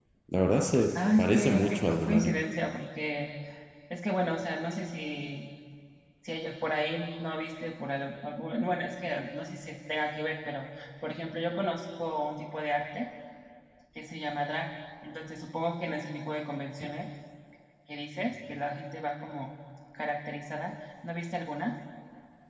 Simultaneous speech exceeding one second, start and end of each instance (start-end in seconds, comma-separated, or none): 1.2-2.5